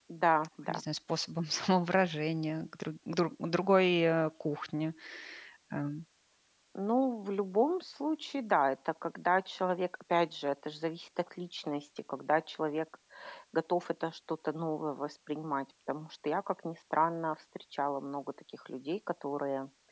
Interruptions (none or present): none